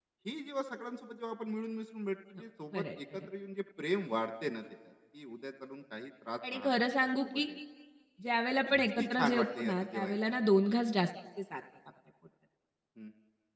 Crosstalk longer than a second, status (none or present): present